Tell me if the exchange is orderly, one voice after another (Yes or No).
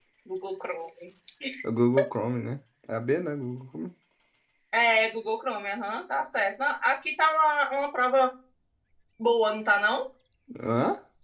Yes